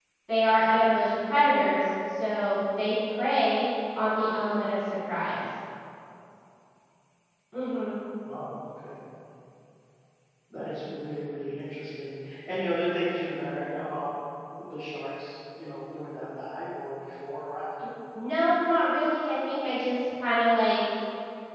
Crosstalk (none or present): none